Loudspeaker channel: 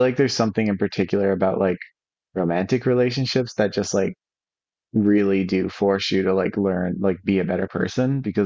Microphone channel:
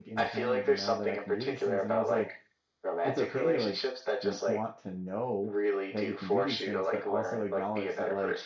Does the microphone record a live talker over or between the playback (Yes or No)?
Yes